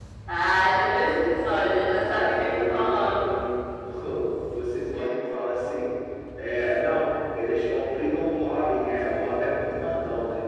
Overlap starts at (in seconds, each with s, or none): 2.0 s